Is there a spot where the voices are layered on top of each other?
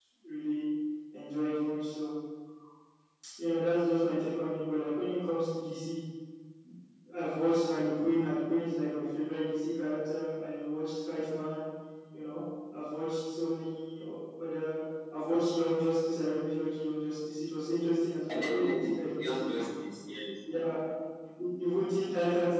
Yes, from 18.3 s

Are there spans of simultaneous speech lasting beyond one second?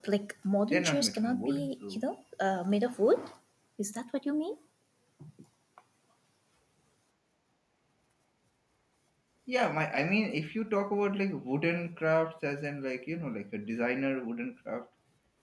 Yes, from 0.7 s

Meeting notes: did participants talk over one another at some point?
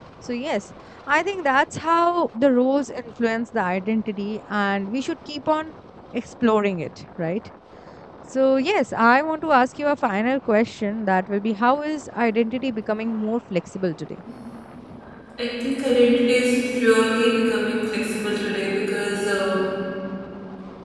No

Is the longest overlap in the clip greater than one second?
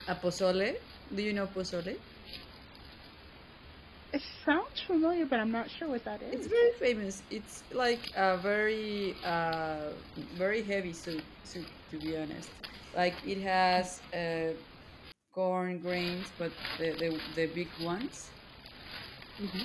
No

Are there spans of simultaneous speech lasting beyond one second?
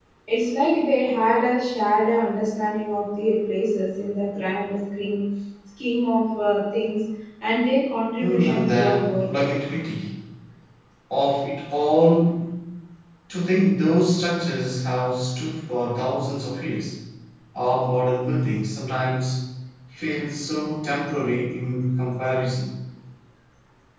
Yes, from 8.2 s

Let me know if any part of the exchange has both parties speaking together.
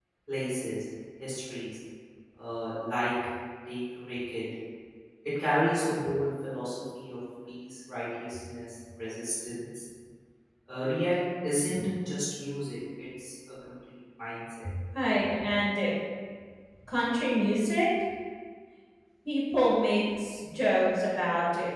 No

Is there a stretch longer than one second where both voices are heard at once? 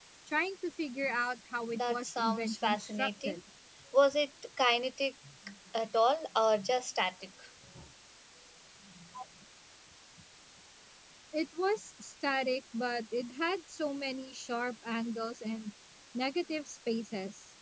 Yes, from 1.7 s

